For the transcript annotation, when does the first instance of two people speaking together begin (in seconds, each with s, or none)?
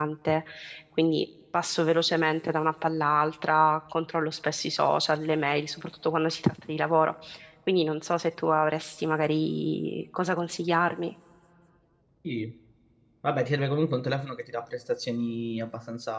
none